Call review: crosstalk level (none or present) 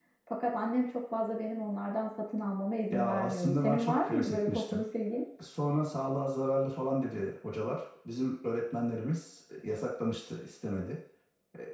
present